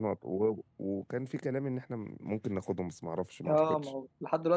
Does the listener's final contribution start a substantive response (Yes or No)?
Yes